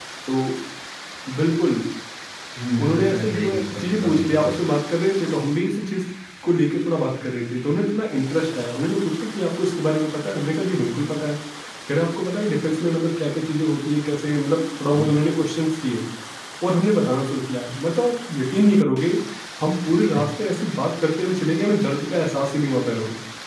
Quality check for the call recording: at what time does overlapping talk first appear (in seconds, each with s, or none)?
2.8 s